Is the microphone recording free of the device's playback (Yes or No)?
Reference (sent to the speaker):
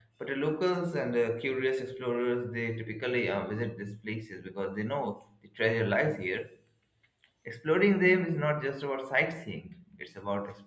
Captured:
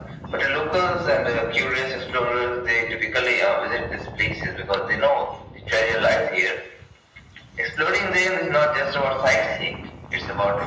No